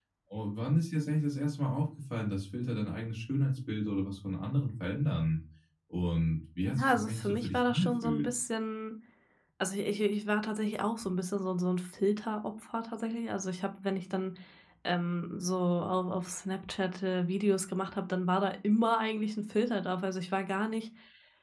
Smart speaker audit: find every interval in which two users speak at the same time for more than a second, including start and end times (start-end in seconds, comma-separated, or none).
6.6-8.3